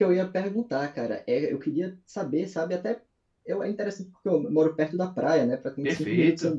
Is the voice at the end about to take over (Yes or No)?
No